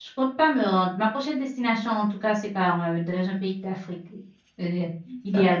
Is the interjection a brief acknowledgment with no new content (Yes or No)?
No